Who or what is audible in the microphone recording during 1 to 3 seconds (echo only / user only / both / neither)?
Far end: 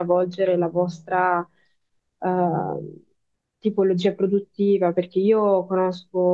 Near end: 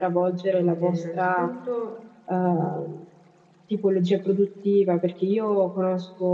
both